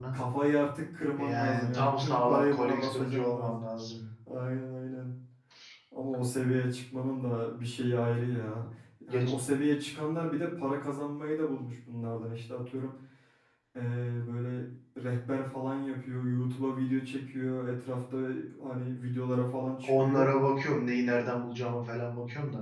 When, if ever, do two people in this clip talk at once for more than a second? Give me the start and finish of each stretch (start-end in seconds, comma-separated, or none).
1.2-3.6